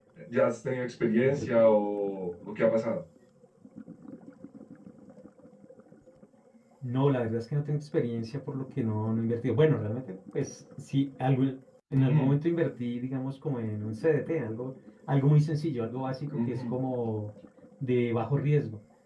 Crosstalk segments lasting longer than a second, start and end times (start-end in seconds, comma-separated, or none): none